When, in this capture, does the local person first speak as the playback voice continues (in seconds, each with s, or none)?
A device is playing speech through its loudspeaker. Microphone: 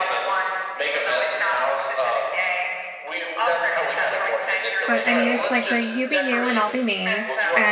4.9 s